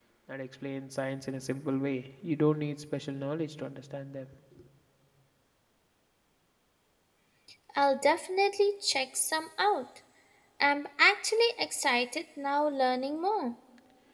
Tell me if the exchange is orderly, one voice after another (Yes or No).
Yes